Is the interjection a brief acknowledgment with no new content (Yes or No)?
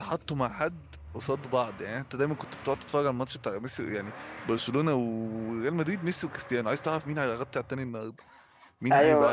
No